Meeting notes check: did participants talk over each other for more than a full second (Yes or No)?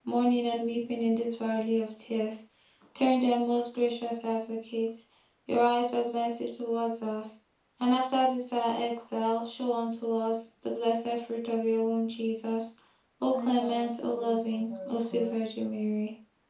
Yes